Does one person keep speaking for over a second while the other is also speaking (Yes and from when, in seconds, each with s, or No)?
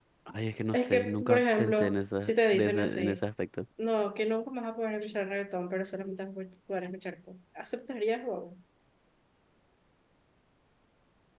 Yes, from 0.7 s